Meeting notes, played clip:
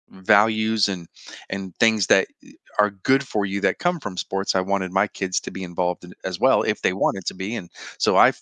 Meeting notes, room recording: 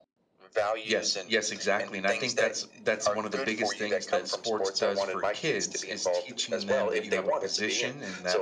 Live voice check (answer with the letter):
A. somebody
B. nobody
A